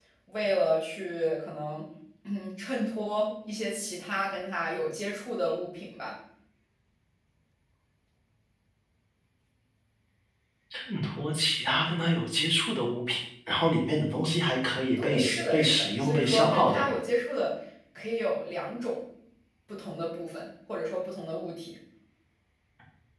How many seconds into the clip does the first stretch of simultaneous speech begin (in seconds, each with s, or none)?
15.0 s